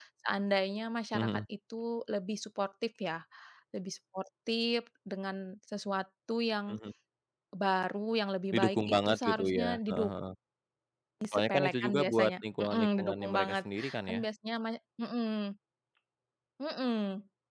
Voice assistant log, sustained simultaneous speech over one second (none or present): present